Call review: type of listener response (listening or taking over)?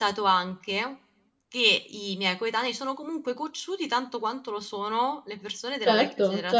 taking over